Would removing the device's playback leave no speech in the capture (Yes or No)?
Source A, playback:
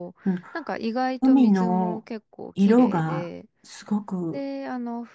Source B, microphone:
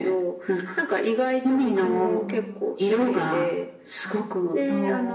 No